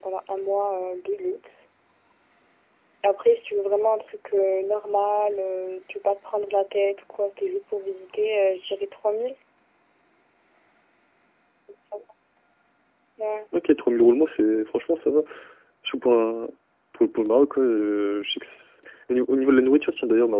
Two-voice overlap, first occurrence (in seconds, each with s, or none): none